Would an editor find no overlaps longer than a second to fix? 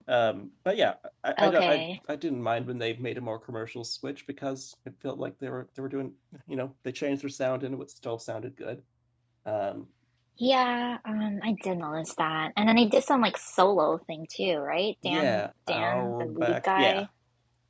No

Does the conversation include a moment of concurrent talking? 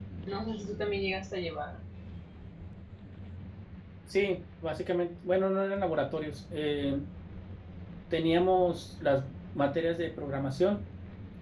No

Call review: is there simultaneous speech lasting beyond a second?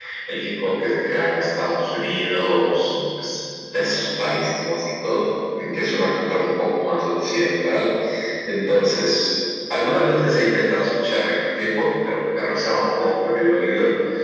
No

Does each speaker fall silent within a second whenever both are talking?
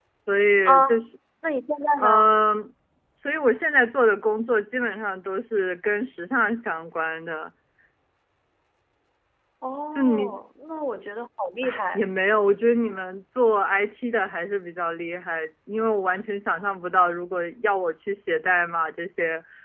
Yes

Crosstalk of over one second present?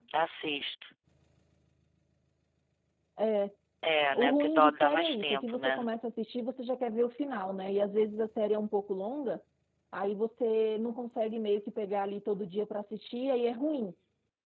Yes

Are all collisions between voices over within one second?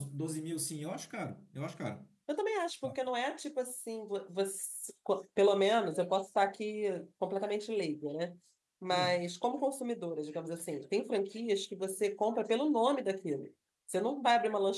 Yes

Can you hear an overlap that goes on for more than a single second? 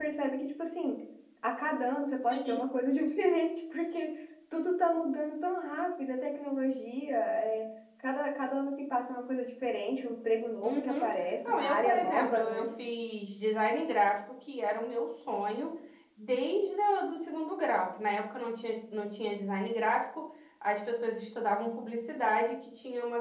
Yes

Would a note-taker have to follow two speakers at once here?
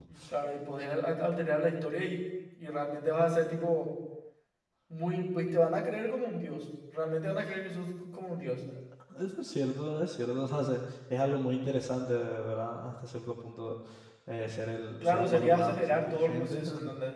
Yes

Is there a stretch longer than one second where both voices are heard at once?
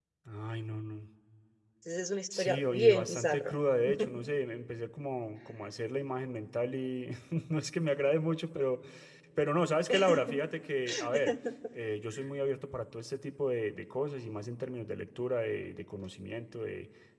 Yes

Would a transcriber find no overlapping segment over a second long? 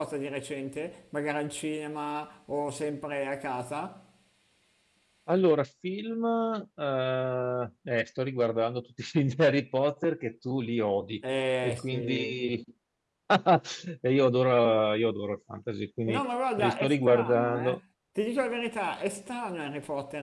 No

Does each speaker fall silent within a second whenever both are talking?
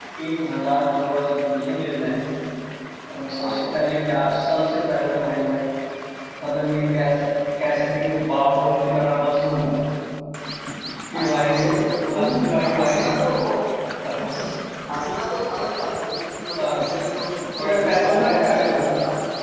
No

